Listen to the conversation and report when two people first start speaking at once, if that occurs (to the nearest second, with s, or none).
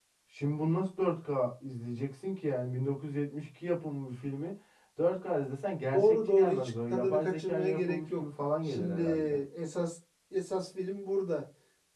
6 s